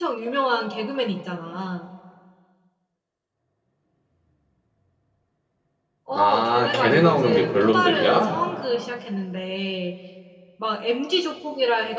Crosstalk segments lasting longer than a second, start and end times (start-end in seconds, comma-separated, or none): 6.1-8.4